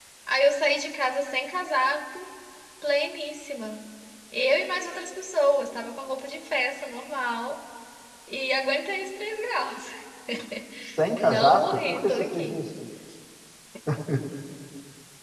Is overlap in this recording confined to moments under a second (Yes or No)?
No